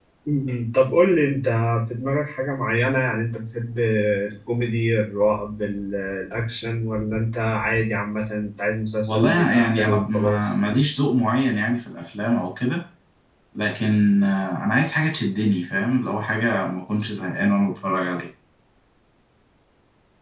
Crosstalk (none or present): present